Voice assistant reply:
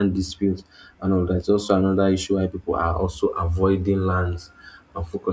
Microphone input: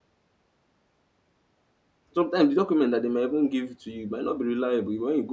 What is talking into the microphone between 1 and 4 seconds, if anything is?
user only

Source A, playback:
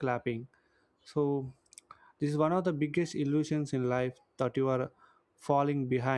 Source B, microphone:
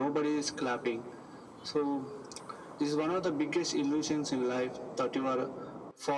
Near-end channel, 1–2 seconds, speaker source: echo only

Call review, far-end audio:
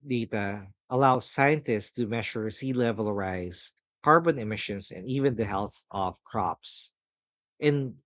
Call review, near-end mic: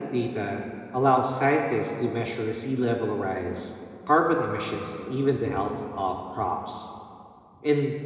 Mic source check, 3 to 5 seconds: echo only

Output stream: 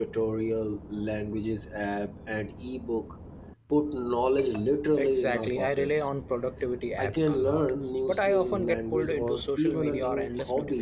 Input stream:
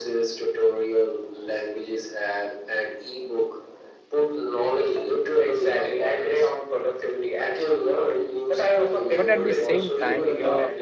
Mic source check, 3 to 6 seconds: echo only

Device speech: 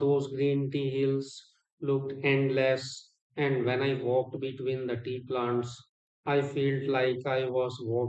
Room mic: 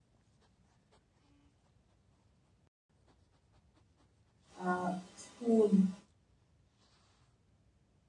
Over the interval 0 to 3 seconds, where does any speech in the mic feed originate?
neither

